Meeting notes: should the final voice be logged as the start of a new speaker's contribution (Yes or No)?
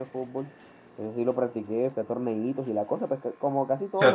Yes